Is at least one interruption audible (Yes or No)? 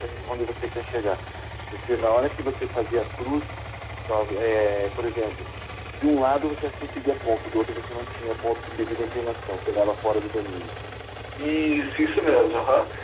No